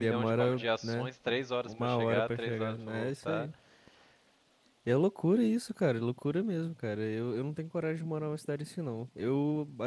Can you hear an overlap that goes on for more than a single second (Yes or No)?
Yes